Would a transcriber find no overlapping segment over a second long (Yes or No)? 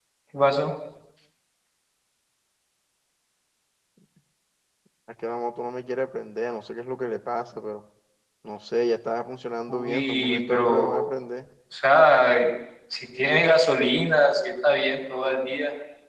No